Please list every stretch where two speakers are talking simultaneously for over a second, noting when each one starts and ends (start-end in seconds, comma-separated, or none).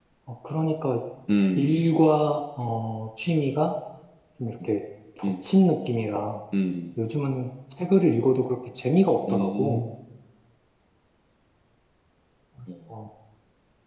none